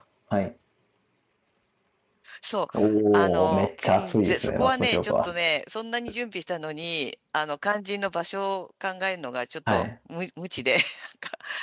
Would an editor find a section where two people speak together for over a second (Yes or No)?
Yes